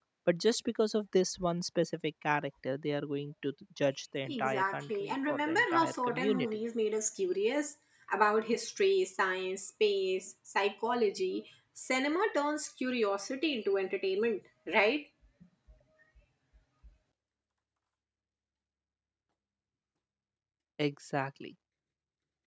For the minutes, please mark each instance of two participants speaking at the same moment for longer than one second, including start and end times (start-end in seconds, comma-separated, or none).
4.3-6.5